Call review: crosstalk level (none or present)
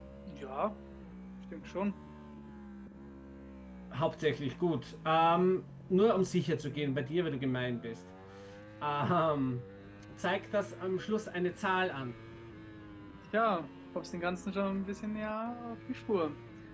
none